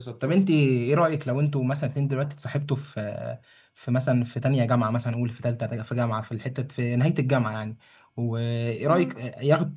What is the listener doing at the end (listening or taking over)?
listening